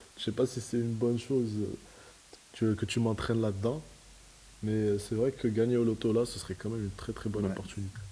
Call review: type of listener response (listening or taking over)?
taking over